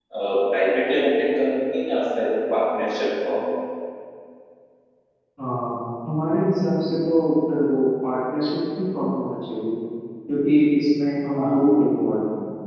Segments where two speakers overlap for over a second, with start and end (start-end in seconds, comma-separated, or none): none